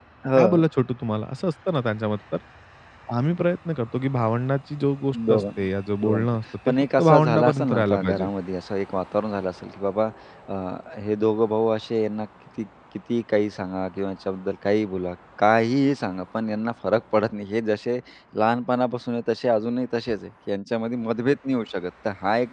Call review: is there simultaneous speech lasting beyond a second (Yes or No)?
Yes